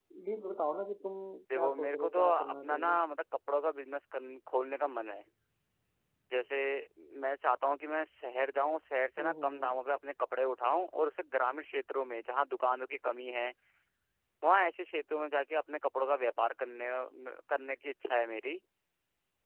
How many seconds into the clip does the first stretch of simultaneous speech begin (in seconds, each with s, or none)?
1.6 s